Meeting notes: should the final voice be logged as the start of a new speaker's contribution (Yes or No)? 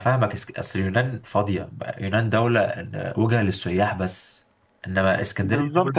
Yes